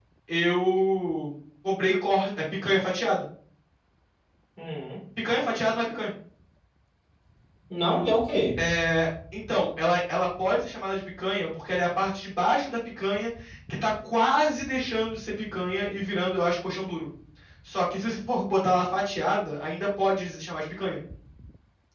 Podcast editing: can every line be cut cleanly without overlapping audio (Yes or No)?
Yes